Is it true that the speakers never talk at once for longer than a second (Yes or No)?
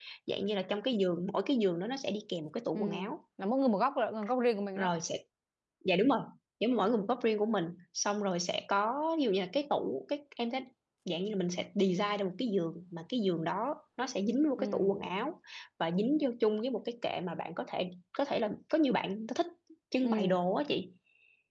Yes